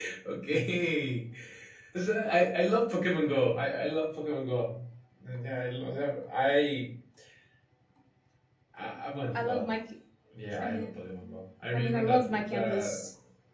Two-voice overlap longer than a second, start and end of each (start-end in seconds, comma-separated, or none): 11.7-13.0